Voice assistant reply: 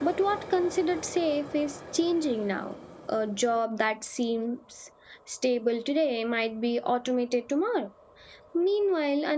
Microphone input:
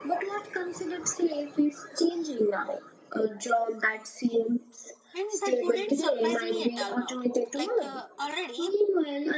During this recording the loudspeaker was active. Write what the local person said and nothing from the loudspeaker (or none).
And that wouldn't surprise me at all now. Like uh, already,